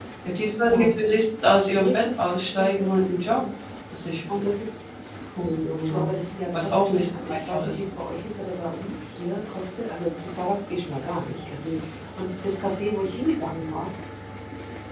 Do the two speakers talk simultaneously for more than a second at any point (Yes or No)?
Yes